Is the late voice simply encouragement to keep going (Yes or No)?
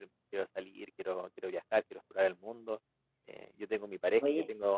Yes